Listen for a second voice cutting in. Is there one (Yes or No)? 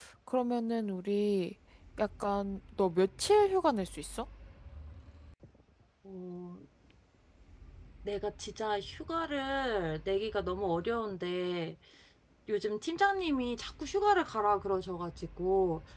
No